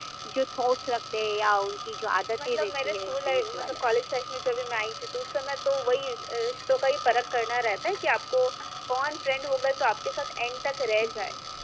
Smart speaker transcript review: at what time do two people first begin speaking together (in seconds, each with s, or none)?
2.5 s